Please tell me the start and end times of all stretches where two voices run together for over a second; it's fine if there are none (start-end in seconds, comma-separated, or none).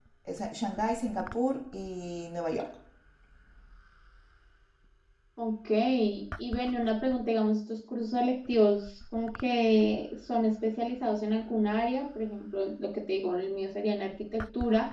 none